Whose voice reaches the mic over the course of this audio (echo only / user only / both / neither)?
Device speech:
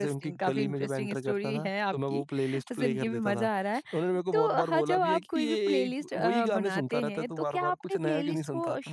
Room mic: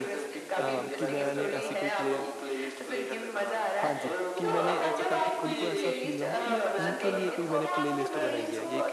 both